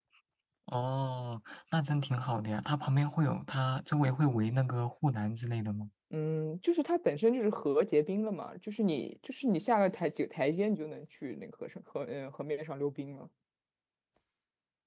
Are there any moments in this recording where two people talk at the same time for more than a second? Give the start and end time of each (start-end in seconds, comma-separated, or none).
none